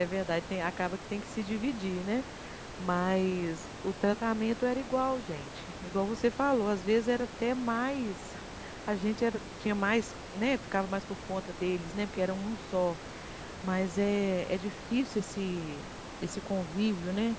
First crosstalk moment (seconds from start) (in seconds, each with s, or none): none